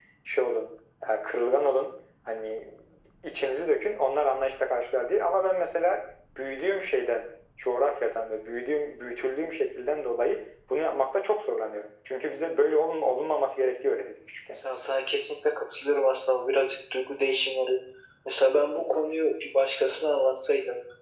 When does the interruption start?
none

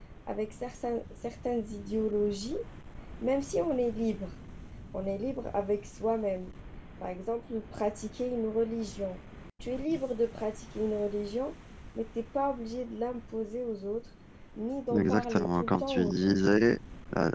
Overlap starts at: 15.0 s

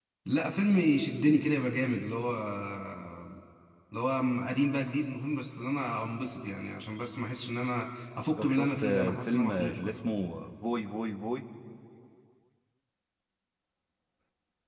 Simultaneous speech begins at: 8.4 s

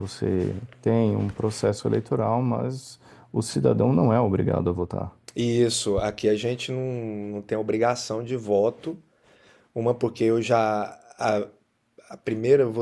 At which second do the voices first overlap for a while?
none

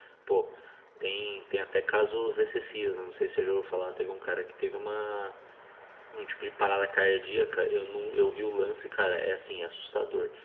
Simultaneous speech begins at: none

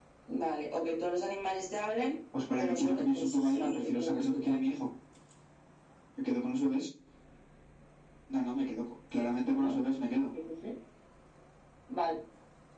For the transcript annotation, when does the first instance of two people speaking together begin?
2.6 s

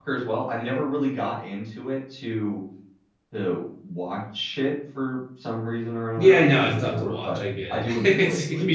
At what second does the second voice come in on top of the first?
6.2 s

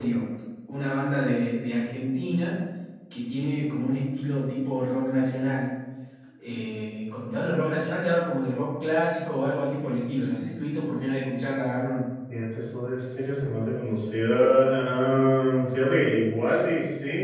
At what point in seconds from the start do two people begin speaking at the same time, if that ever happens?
none

